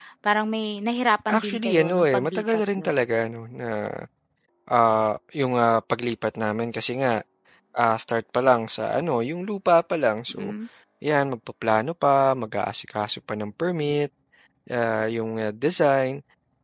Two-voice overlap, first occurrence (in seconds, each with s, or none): 1.3 s